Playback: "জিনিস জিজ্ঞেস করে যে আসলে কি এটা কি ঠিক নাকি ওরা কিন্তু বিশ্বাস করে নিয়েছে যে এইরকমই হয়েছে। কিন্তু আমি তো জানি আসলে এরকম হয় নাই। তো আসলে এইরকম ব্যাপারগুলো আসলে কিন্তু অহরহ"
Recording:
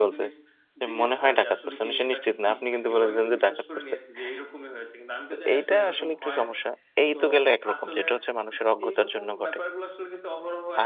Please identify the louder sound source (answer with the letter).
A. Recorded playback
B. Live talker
B